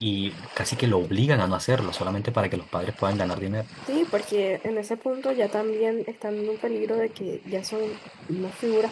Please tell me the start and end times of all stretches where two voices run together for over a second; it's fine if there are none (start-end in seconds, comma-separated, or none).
none